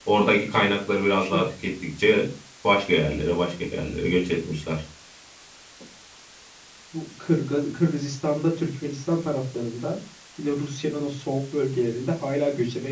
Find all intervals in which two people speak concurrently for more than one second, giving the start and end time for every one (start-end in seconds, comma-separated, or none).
none